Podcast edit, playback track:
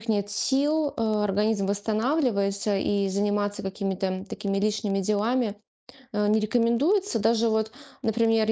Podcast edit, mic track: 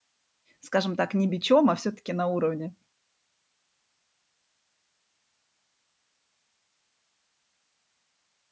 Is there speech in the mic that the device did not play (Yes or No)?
Yes